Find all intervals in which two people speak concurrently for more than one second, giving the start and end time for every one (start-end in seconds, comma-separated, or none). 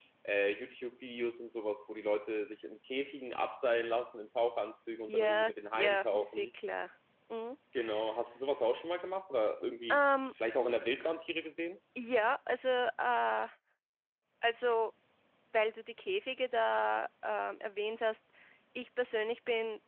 5.1-6.5